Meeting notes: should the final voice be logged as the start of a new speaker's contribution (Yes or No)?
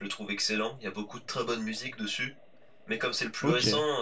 No